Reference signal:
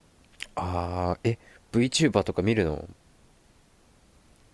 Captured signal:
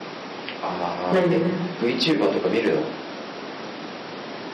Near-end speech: present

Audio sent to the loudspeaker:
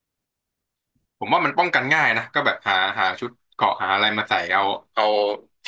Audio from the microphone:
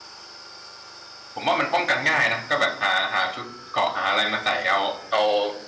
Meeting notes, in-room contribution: none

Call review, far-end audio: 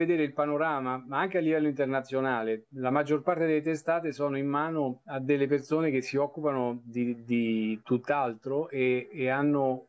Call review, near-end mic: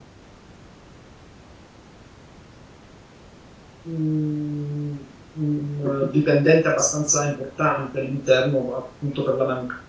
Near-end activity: present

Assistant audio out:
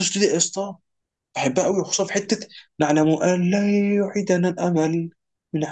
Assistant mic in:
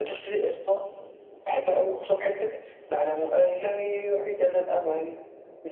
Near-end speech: none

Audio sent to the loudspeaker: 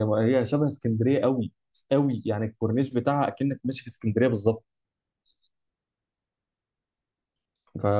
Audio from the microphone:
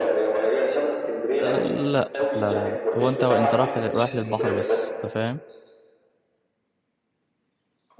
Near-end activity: present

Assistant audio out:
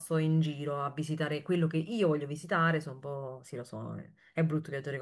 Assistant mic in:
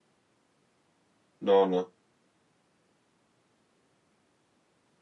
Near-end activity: present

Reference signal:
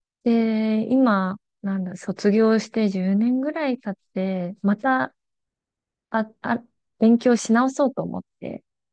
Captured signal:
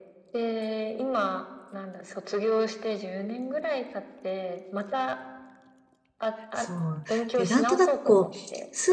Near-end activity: present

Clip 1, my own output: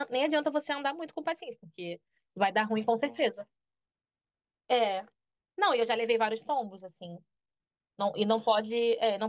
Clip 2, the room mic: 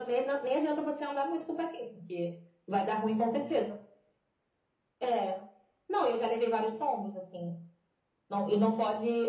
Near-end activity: none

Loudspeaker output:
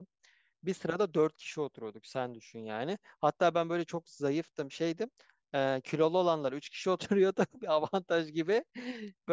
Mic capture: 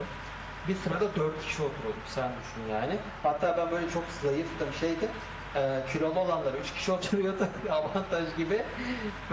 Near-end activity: none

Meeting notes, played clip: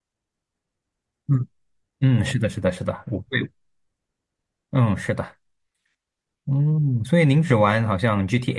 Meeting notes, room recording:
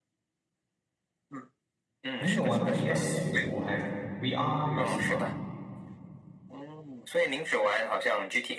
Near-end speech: present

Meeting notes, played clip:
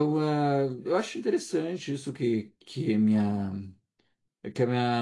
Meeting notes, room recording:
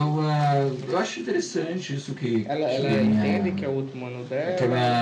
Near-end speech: present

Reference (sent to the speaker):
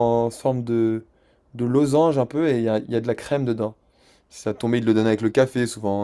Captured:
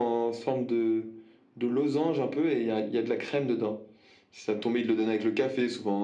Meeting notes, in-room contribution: none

